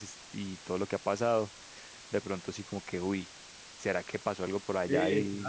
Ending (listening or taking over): taking over